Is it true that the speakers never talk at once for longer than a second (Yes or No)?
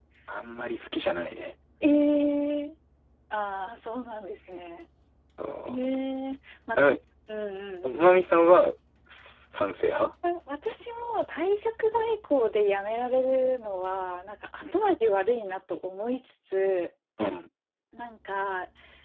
Yes